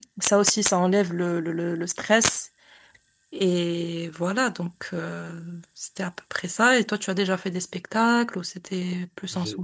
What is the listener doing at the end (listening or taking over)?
taking over